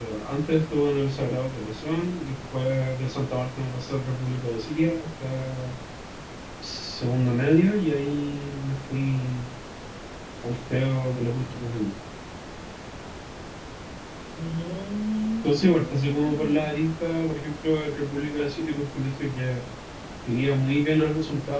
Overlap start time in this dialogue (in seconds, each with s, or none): 15.4 s